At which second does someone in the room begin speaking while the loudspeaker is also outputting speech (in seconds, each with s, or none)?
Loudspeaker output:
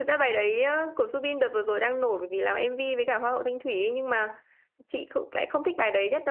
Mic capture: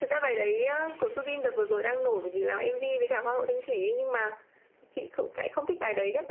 none